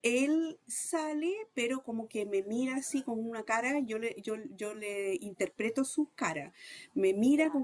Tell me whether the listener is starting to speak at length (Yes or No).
No